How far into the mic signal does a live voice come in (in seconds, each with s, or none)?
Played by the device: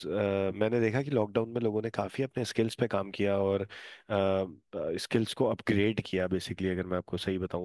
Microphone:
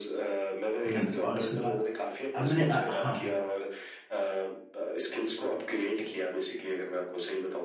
0.9 s